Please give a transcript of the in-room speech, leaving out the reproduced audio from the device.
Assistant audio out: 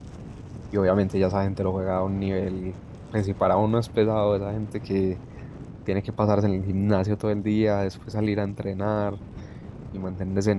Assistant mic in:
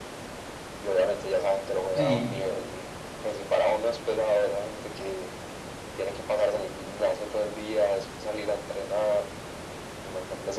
Sí,

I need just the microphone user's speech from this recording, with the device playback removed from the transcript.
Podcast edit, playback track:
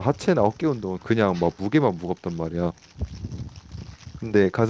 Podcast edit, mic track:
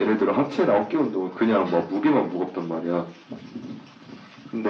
none

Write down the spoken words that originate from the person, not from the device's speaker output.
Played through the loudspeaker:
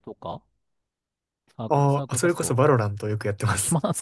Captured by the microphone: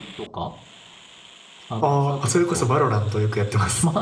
none

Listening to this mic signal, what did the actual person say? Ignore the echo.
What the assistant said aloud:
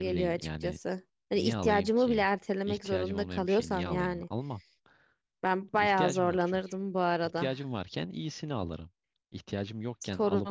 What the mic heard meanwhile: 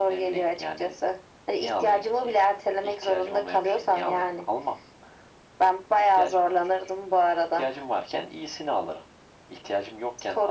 none

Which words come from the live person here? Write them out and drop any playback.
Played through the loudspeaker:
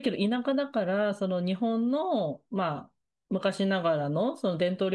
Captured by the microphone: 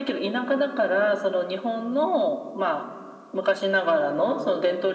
none

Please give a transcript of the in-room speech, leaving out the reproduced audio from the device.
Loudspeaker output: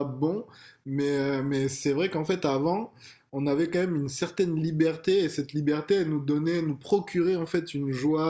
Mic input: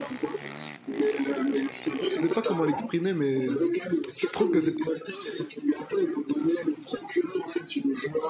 je sais pas comment l'exprimer, mais je trouve que c'était

